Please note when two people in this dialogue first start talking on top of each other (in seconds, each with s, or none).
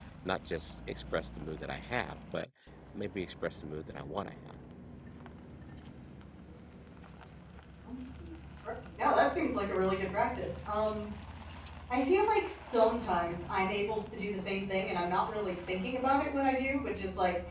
none